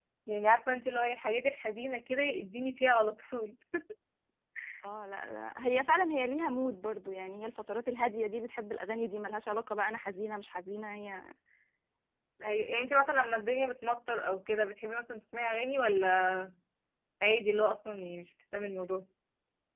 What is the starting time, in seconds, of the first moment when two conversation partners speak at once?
none

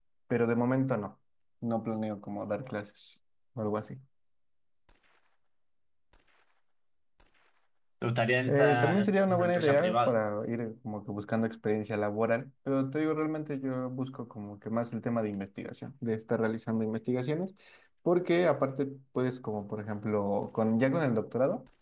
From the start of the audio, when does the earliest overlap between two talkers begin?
8.5 s

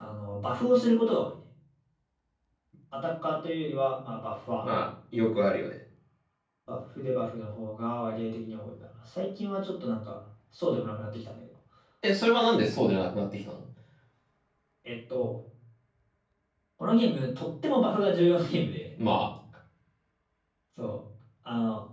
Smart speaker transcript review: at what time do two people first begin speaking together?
none

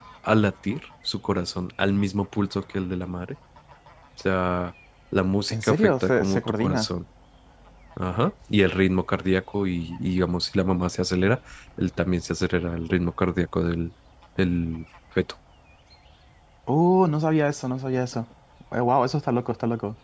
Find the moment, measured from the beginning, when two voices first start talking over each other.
5.5 s

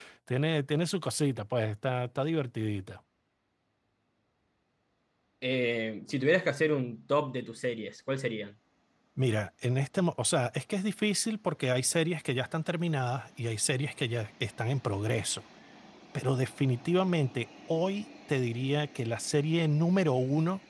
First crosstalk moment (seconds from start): none

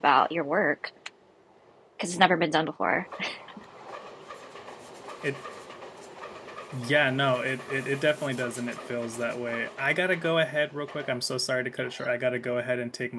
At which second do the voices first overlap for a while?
none

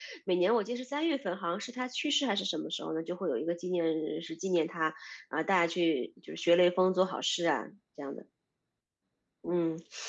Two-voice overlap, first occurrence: none

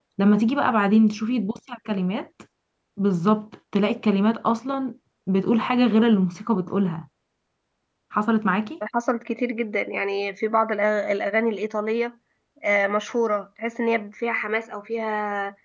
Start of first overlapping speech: none

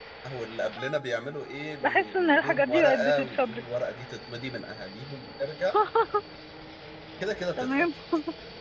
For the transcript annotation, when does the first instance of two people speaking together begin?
1.8 s

